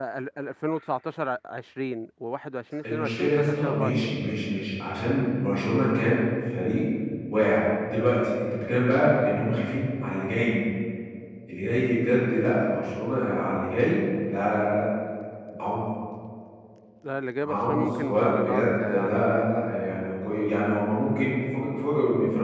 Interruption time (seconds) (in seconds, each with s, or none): 2.9 s